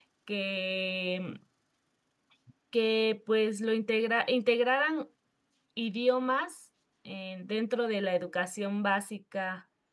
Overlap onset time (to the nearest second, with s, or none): none